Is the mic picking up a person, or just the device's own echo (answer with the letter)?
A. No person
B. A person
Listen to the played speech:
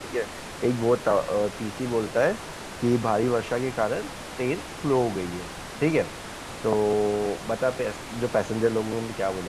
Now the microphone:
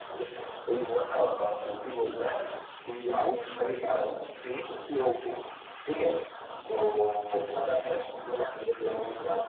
A